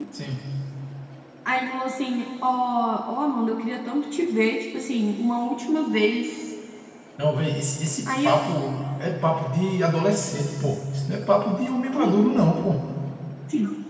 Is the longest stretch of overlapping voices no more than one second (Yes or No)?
Yes